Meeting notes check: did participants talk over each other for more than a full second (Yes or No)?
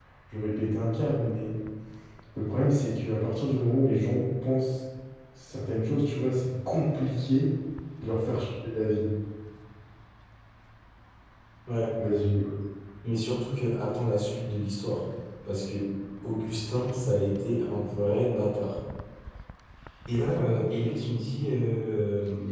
No